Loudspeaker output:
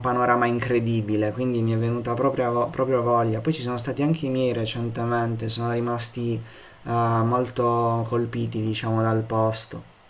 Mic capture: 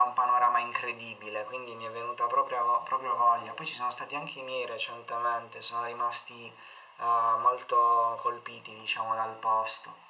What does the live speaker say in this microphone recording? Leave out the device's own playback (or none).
none